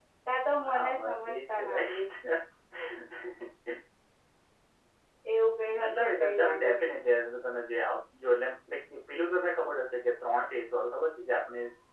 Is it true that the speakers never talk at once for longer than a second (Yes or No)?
No